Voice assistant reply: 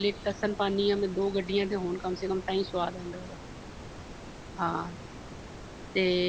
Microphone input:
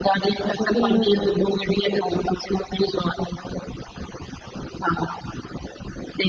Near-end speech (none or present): present